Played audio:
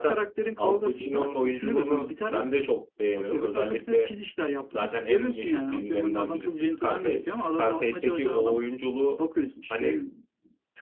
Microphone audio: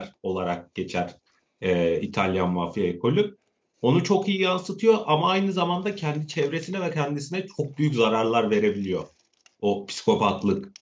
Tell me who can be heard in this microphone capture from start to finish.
user only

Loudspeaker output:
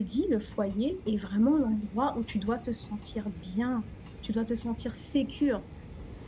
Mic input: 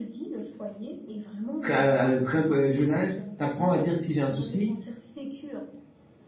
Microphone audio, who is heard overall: both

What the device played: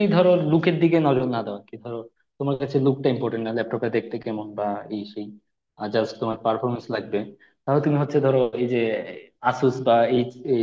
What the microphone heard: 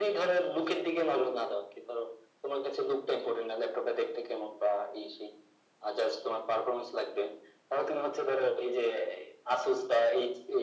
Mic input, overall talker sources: echo only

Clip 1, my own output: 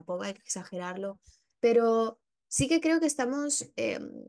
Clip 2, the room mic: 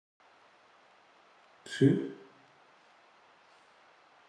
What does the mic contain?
user only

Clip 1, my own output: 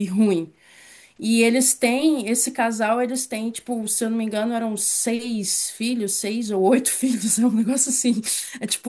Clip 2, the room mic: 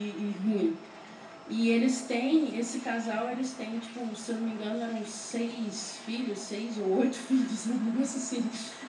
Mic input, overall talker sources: echo only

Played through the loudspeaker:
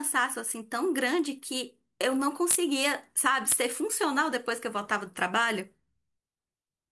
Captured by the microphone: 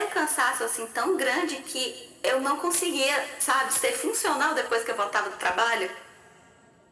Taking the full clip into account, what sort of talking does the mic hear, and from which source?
echo only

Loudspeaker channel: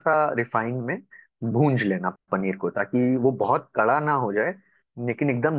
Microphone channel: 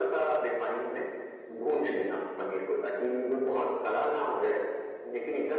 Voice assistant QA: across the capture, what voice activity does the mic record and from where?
echo only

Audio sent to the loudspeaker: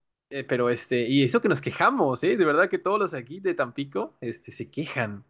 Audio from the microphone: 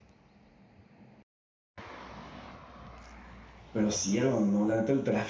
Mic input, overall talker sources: user only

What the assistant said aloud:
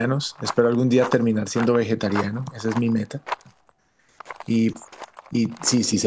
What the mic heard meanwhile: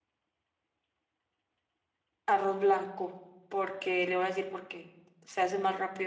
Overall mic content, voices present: user only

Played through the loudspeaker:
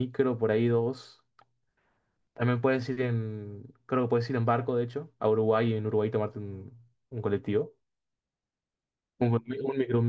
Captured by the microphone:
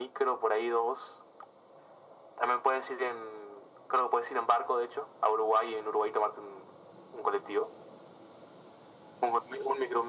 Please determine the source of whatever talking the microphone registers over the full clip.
echo only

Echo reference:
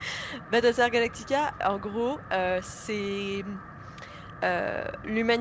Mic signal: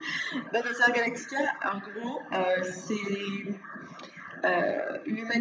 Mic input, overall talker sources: echo only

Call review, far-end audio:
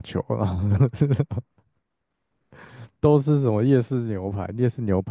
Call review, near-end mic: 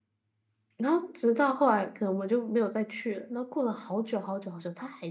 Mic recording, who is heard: user only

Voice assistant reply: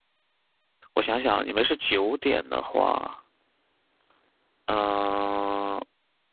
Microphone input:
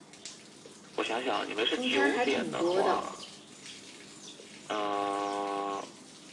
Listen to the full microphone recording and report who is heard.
both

